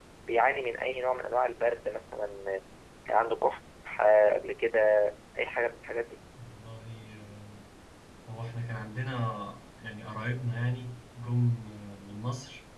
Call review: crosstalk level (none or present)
none